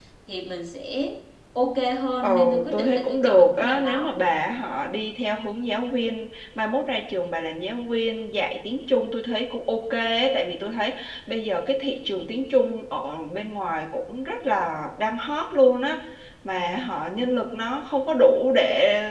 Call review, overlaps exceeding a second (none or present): present